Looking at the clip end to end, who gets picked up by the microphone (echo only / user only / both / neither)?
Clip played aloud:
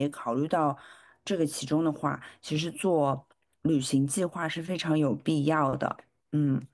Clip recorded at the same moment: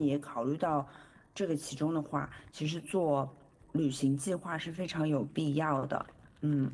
echo only